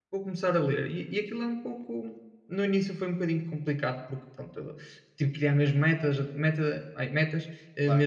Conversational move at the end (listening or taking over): listening